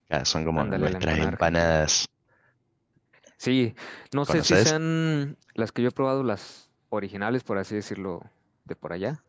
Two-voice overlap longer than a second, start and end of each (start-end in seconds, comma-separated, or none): 0.6-1.8